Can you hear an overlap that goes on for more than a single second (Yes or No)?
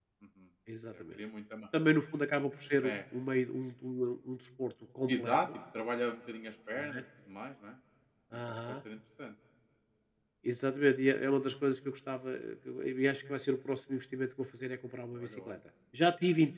No